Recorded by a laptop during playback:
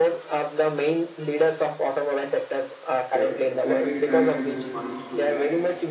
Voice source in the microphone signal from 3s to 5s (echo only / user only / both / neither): both